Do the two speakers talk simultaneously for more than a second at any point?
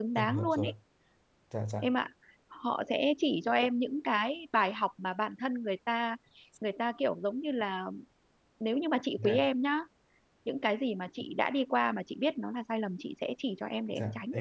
No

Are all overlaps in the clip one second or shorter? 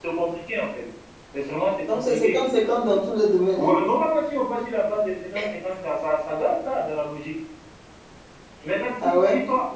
Yes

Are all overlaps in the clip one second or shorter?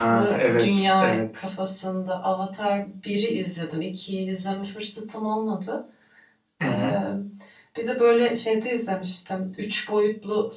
No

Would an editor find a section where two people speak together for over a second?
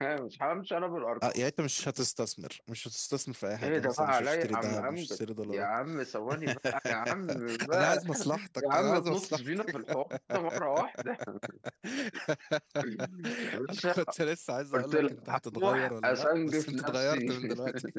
Yes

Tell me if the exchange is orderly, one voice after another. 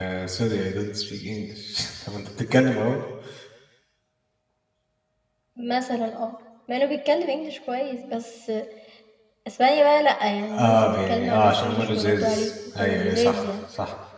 No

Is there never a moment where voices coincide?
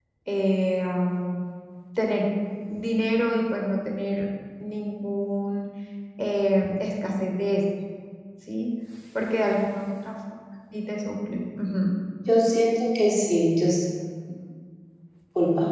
Yes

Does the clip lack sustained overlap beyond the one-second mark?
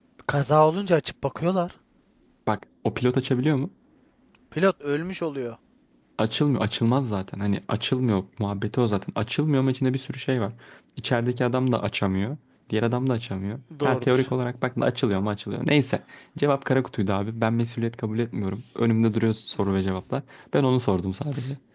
Yes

